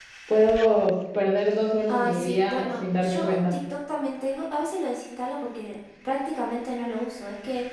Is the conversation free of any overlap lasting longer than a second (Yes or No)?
No